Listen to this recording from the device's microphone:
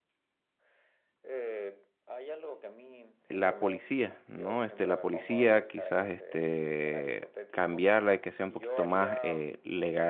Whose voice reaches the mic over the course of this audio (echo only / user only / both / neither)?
both